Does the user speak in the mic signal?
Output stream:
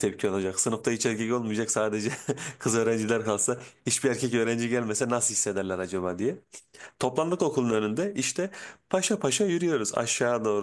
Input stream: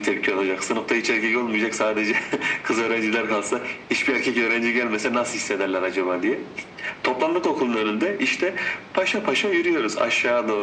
No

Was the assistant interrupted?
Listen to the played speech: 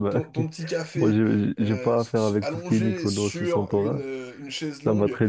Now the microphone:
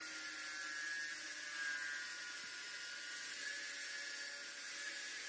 No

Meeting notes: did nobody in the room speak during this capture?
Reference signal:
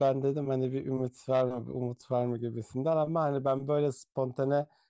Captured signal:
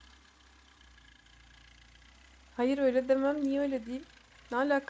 No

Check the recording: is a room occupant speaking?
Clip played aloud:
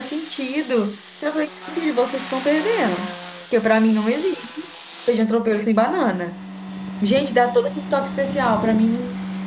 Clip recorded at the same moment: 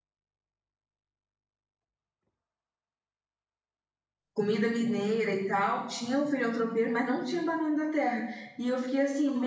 Yes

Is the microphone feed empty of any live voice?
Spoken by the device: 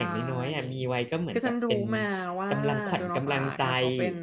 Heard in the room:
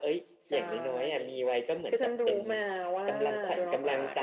Yes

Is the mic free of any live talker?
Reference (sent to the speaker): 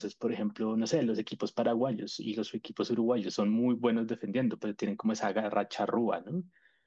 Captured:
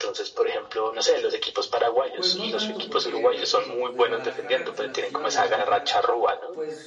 No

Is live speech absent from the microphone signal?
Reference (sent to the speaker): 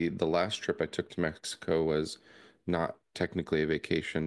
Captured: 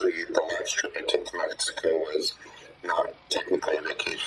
Yes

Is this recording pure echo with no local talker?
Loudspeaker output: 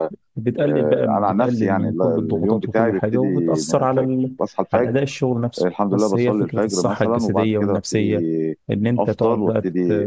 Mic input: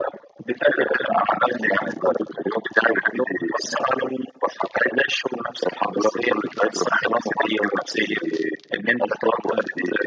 Yes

